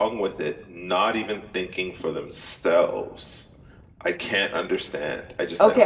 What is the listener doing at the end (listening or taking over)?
taking over